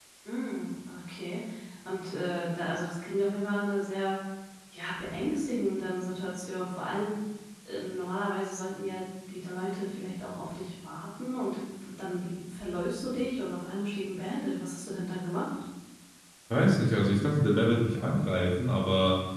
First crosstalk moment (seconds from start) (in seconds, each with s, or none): none